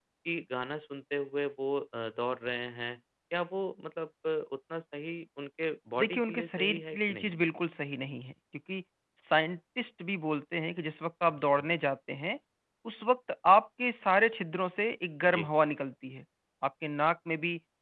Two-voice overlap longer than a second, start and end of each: 6.0-7.3

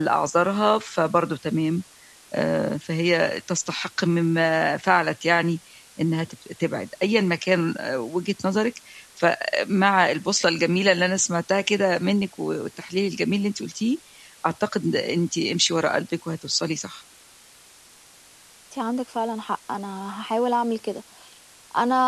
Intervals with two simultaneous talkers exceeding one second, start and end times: none

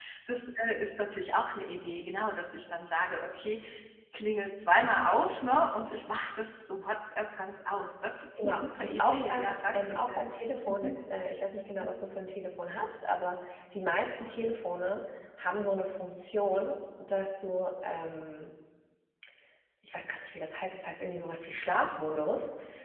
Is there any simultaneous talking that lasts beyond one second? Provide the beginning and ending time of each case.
8.4-10.2

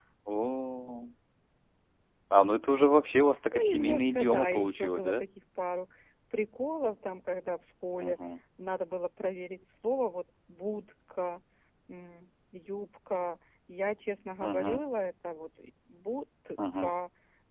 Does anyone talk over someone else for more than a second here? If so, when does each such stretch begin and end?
3.5-5.2

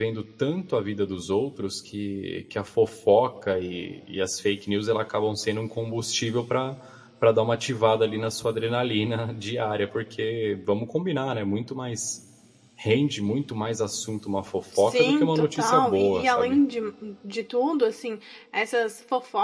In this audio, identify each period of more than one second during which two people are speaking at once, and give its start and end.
14.8-16.6

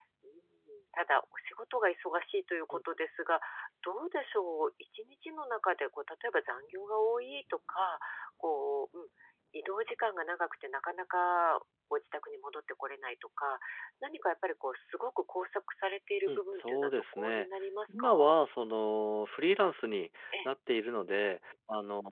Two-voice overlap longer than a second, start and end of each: 16.3-17.5

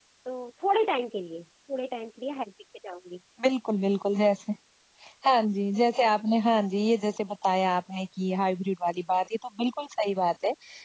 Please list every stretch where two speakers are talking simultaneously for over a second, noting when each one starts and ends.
none

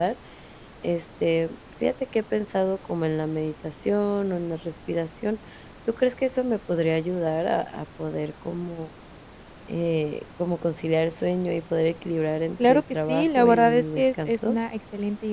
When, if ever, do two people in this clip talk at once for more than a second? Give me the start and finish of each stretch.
12.6-14.6

